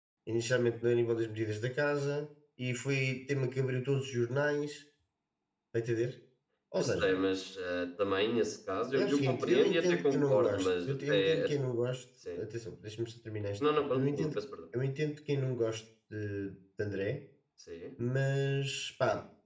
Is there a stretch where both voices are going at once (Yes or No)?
Yes